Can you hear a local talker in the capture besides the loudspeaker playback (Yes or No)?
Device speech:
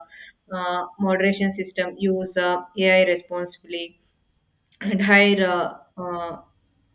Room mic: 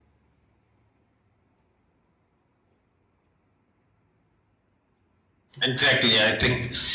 Yes